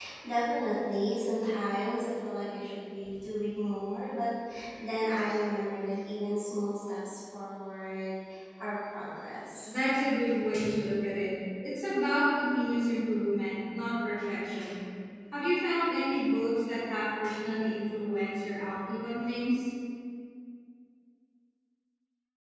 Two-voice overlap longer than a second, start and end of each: none

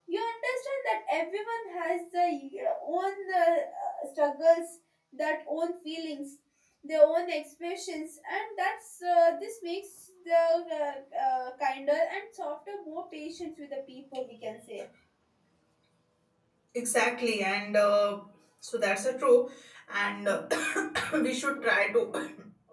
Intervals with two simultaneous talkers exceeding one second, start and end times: none

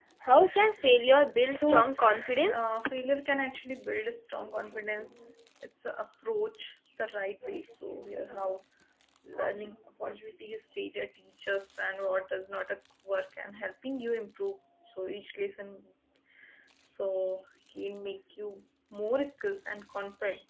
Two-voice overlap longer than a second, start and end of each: 1.4-2.7

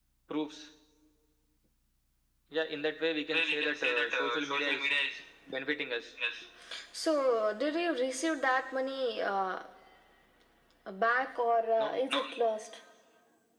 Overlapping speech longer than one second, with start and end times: 3.3-4.9

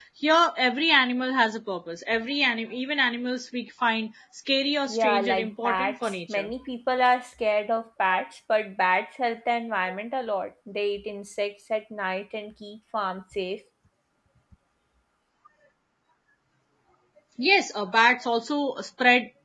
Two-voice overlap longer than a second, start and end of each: 4.9-6.5

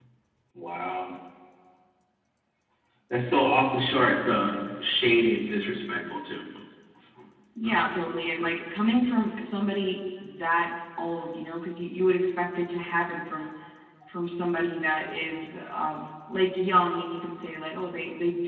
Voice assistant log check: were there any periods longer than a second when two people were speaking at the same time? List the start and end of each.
none

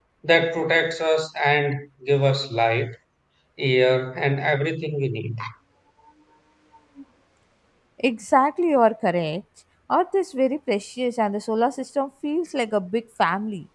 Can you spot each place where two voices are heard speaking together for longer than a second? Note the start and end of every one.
none

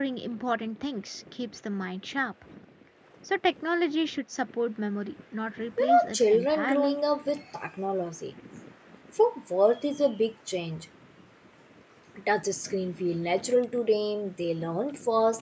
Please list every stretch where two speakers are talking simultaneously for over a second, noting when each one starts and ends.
5.8-7.0

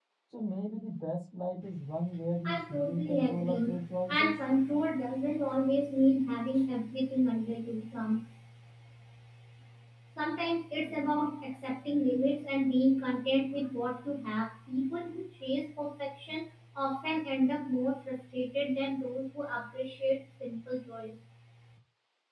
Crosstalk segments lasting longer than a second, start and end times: 2.5-4.3

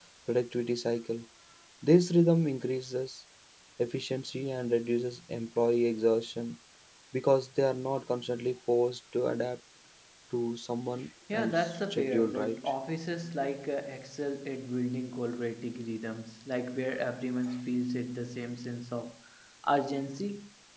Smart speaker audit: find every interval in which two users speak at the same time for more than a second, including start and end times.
11.3-12.6

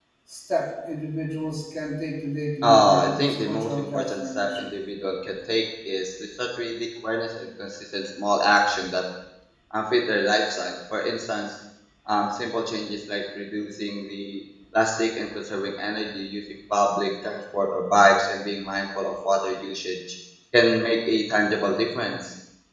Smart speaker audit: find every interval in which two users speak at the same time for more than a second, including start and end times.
2.6-4.7

